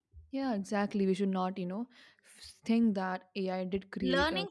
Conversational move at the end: taking over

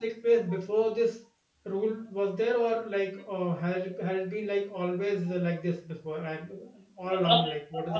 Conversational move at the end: taking over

